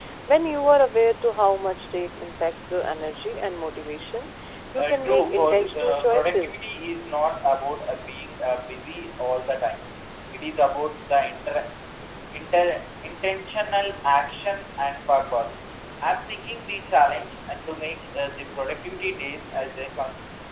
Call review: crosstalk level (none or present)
present